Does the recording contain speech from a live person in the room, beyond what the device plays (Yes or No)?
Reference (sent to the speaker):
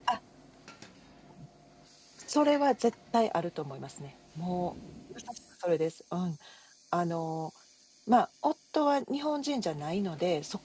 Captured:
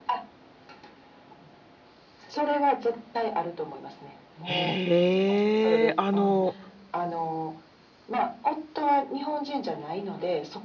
Yes